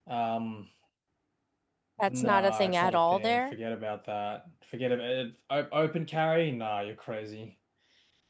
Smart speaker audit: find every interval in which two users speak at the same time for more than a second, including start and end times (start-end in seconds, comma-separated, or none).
2.1-3.5